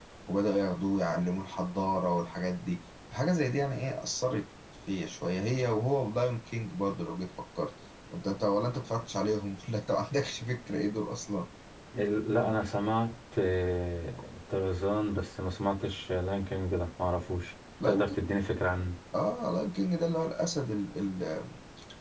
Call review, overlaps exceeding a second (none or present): none